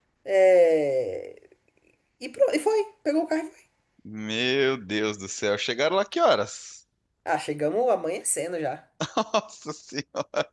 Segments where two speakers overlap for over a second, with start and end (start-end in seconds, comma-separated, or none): none